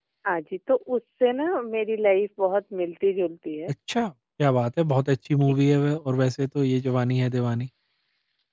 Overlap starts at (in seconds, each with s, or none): none